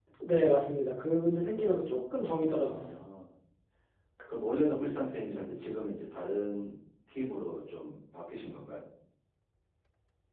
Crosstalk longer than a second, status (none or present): none